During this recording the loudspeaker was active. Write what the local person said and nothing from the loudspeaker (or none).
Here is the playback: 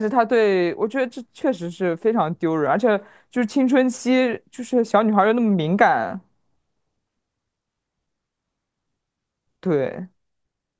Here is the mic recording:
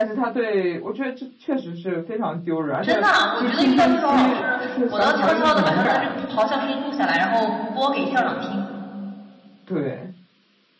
真的啊，我觉得遇到这种老师，我都要悄悄的把他的这个咆哮声音录下来，然后播给校长听。